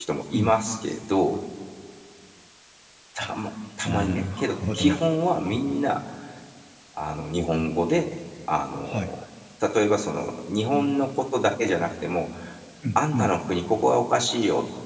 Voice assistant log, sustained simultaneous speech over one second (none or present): present